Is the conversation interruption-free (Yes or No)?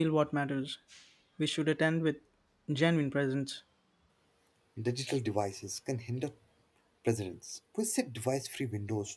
Yes